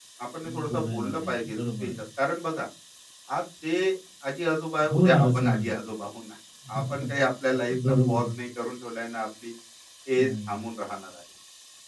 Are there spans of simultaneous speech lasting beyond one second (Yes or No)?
Yes